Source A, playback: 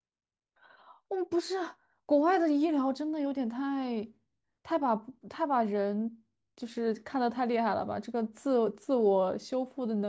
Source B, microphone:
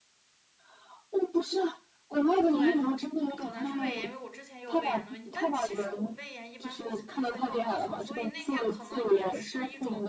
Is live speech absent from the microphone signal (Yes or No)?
No